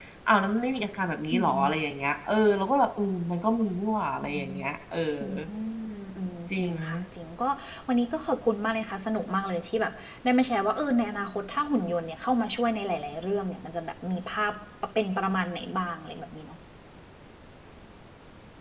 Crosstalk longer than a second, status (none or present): none